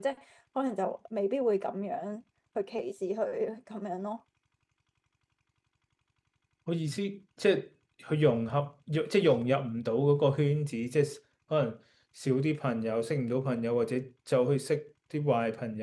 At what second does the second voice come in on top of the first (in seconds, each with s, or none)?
none